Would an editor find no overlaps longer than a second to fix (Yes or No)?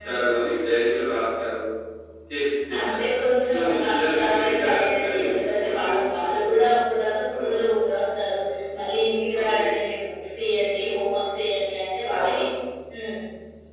No